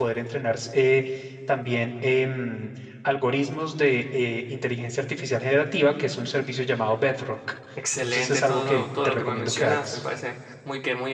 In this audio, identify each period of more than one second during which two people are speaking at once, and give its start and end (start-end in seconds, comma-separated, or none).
8.0-10.0